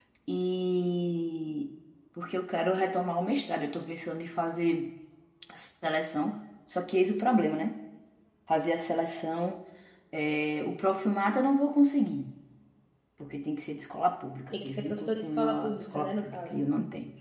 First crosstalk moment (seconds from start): 14.5 s

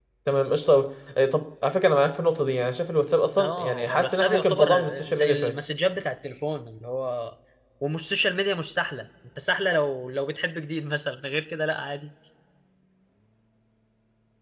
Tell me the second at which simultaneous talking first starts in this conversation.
3.3 s

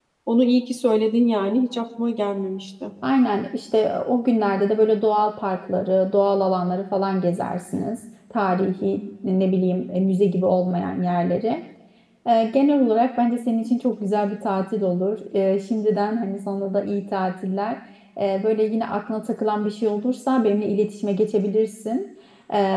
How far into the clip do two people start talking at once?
none

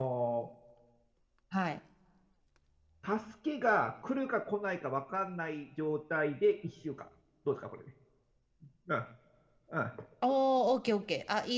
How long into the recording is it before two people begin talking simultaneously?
none

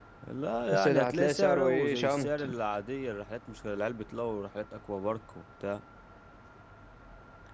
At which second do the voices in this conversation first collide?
0.7 s

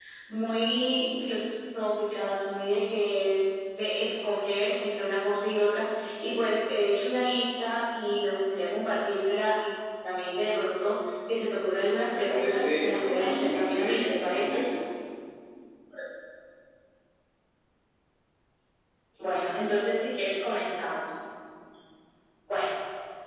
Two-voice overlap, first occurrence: 12.1 s

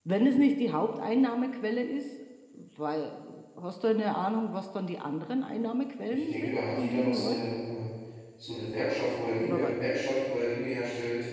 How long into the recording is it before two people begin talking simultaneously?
6.1 s

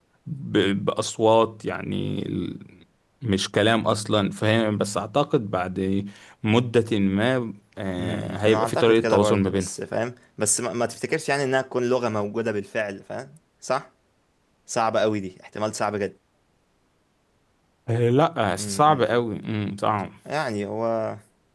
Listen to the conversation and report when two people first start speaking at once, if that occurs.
8.0 s

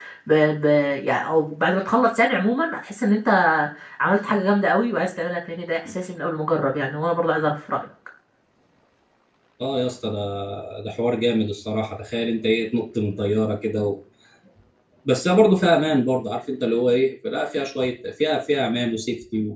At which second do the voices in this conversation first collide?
none

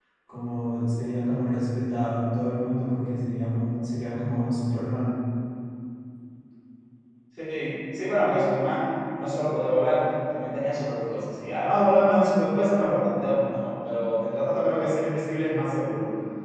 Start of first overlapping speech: none

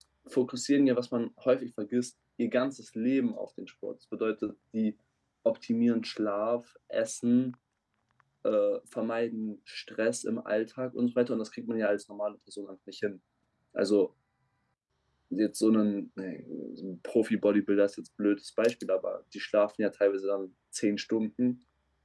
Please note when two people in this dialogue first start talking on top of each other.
none

